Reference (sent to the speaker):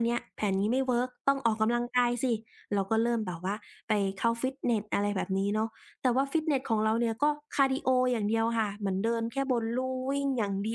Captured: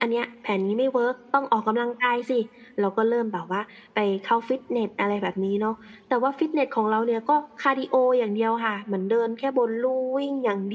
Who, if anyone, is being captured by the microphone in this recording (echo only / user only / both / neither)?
echo only